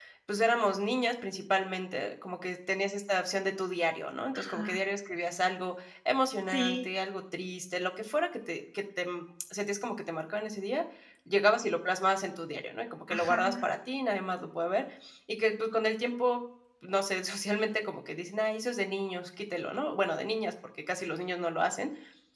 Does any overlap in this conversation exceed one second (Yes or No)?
No